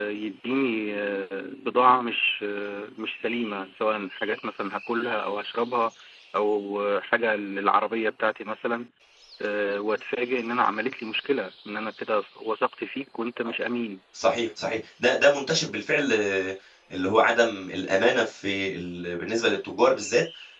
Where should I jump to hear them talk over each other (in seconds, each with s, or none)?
none